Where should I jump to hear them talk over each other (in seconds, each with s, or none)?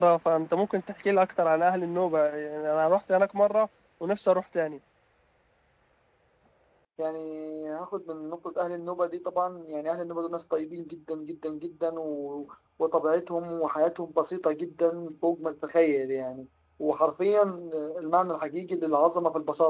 none